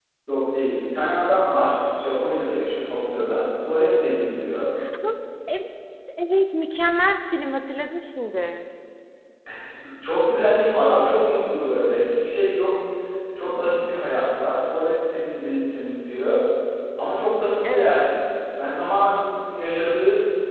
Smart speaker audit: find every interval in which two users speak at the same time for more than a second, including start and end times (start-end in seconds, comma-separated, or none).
none